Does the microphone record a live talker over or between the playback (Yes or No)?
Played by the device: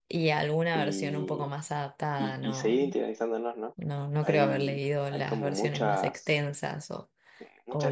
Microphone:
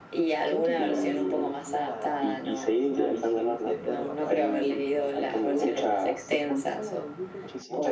Yes